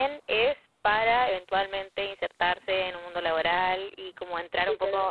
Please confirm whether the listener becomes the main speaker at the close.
No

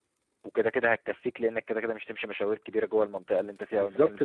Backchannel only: No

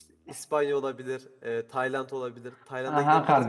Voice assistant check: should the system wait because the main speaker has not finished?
No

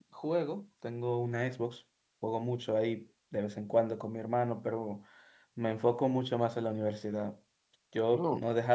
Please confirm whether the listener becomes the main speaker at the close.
No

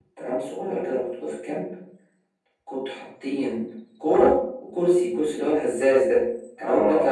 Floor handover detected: No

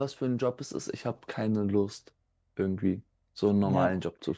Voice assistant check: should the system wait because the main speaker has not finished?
Yes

